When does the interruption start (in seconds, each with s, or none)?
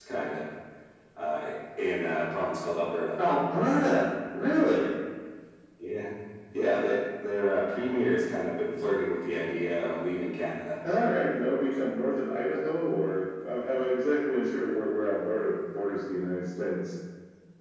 none